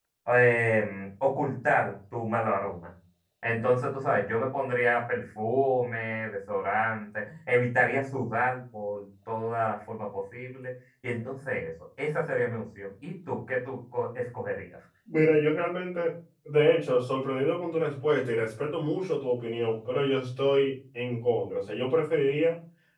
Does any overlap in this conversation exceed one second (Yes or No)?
No